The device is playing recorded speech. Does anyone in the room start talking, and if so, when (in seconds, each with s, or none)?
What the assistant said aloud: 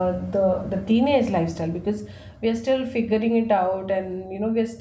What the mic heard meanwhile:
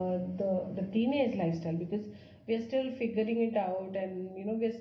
none